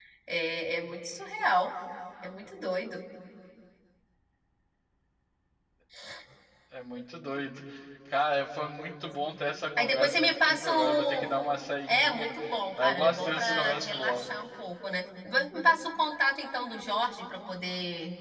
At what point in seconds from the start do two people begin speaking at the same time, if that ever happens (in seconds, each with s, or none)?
9.8 s